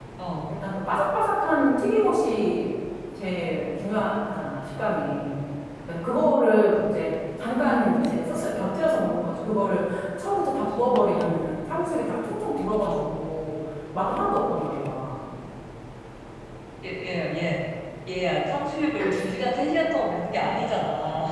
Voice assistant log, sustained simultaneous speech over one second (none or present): none